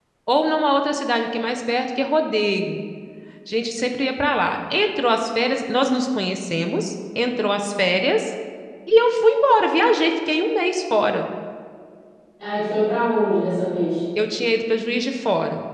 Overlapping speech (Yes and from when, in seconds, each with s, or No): No